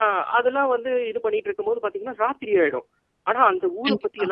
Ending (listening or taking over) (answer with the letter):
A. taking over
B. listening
B